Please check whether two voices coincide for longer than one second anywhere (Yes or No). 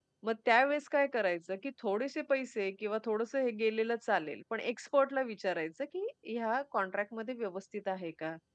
No